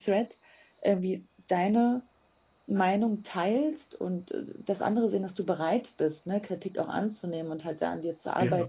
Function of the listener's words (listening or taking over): listening